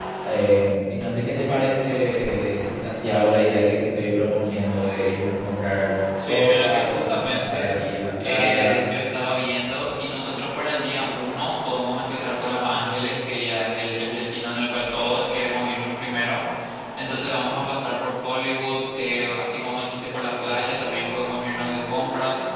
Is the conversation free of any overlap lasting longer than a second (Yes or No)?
No